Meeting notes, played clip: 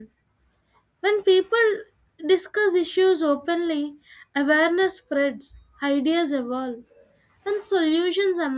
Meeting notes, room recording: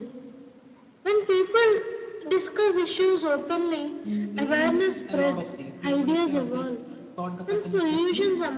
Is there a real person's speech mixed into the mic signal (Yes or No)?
Yes